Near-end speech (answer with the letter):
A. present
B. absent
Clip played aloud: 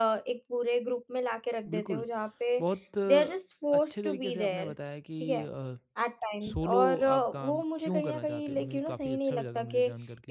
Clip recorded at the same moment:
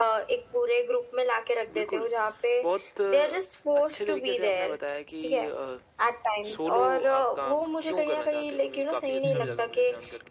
A